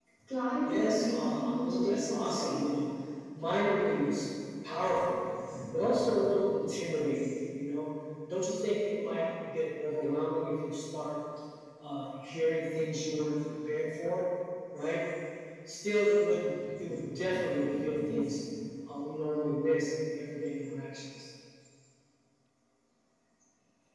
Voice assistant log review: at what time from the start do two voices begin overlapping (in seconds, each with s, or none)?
0.7 s